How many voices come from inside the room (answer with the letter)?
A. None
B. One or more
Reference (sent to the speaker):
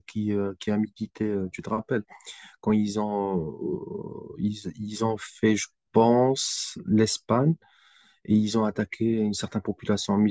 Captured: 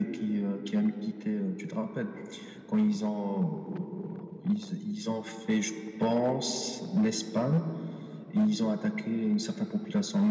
A